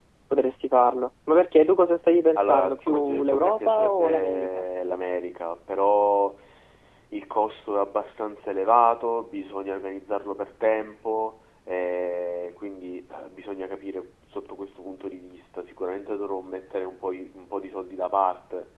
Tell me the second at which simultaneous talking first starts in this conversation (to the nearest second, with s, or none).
2 s